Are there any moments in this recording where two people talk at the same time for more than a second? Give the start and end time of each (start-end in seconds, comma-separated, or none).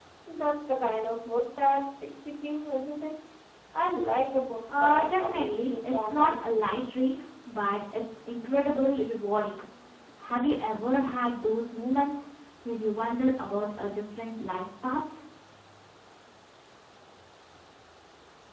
4.7-6.4